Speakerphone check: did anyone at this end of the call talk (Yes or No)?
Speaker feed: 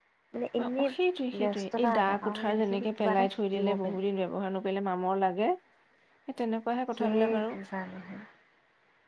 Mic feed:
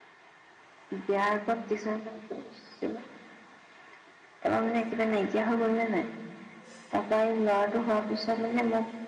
Yes